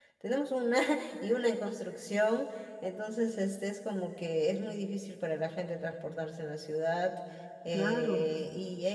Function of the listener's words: listening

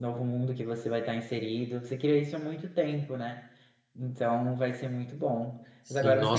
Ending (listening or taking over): listening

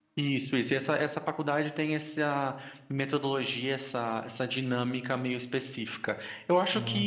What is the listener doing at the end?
listening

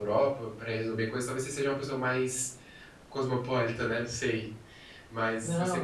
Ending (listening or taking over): taking over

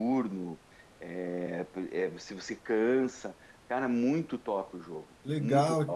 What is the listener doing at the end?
taking over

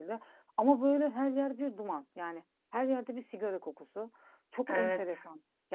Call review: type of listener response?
listening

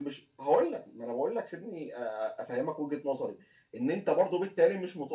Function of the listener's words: listening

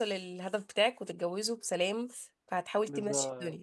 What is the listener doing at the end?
taking over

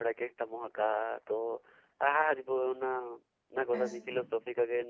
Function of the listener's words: listening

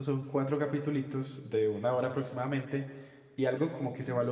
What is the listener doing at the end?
listening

